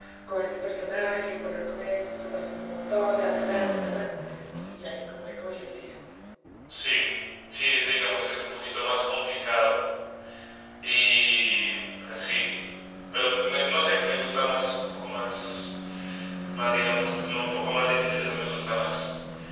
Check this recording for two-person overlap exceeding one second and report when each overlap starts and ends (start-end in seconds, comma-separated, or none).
none